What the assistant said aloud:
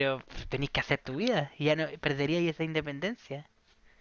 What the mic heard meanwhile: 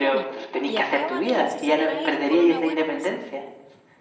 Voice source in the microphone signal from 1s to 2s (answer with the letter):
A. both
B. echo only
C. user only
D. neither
A